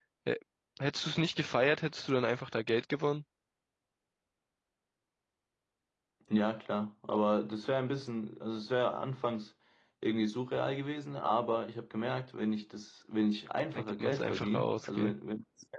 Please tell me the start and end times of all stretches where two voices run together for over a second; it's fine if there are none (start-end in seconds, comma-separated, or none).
13.8-15.1